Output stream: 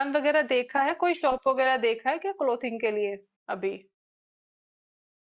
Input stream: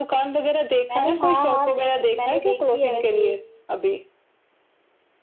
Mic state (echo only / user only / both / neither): both